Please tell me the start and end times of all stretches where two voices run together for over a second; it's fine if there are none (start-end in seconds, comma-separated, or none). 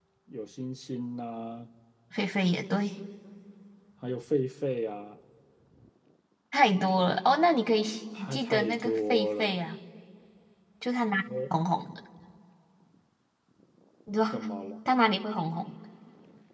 8.2-9.6